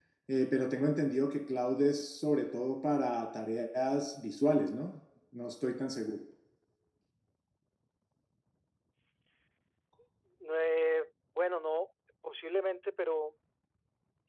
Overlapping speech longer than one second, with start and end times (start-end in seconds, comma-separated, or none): none